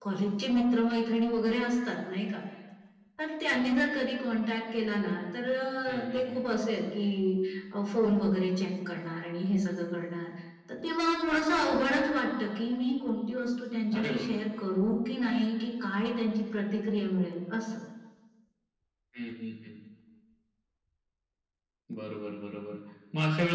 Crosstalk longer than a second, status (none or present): none